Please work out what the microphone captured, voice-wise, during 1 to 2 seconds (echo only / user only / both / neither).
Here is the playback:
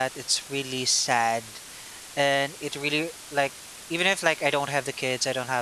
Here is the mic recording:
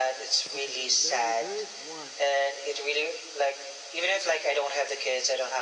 both